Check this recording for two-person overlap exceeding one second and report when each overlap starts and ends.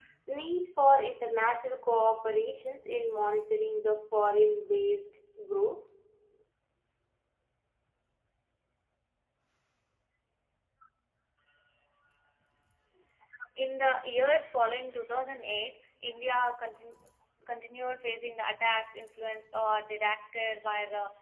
none

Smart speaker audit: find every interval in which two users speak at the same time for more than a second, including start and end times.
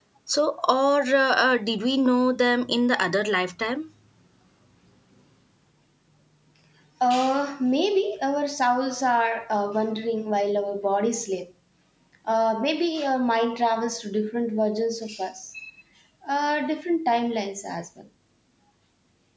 none

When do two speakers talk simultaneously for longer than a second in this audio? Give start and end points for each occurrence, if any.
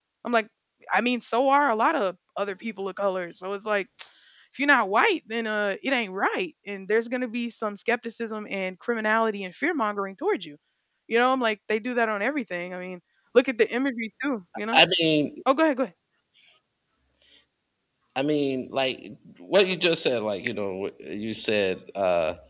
none

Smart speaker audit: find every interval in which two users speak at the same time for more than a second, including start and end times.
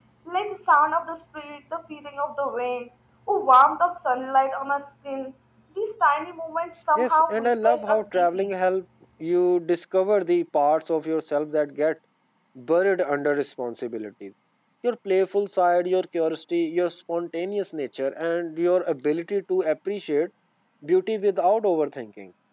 7.0-8.5

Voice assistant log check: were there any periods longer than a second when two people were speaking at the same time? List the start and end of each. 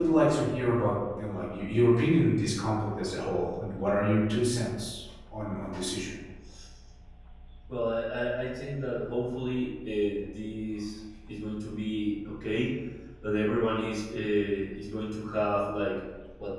none

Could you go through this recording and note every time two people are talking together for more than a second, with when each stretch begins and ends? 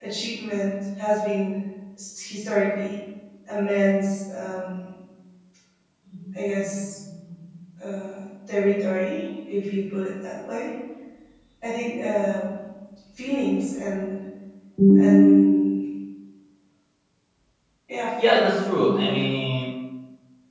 18.2-19.4

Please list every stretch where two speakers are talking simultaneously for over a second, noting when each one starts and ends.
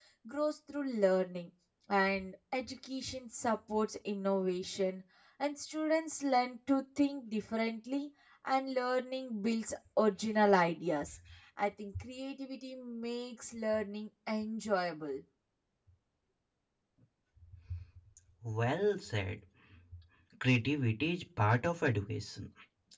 none

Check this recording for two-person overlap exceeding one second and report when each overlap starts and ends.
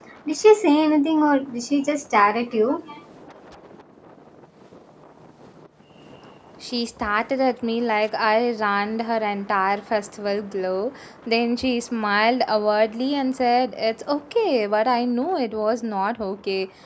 none

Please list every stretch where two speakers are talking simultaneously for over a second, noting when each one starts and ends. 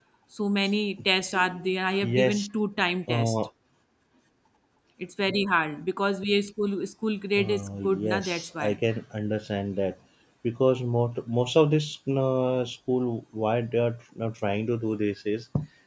7.4-8.8

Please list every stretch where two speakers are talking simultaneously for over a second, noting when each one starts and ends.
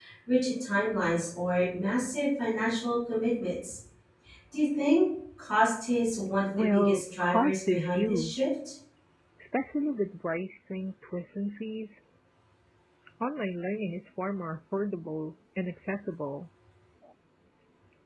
6.7-8.5

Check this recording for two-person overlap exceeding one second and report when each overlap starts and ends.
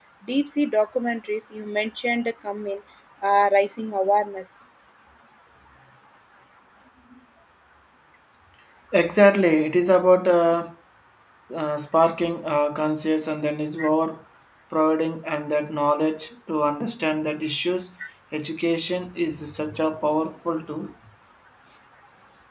none

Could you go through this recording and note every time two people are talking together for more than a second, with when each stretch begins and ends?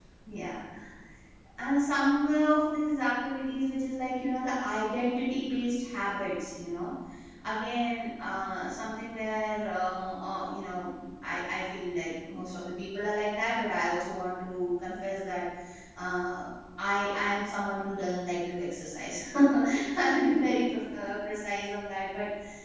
none

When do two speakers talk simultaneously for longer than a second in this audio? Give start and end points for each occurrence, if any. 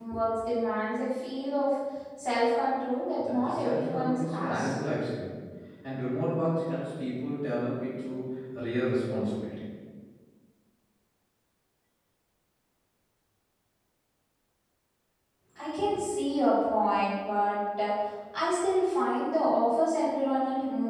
3.2-4.8

